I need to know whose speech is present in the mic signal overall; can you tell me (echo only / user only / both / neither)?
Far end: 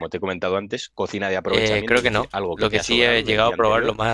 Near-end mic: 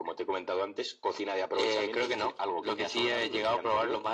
echo only